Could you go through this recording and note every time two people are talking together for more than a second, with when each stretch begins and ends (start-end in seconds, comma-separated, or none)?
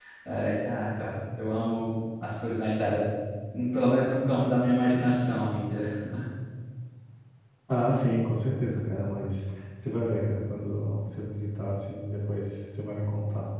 none